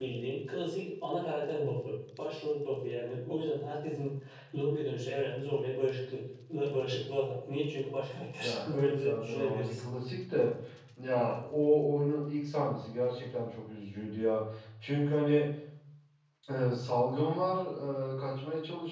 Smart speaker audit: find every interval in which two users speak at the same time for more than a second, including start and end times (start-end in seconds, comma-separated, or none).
8.4-9.8